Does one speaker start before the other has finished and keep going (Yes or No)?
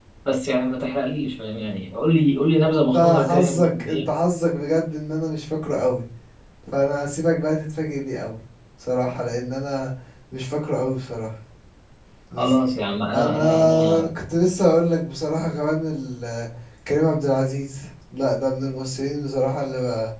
Yes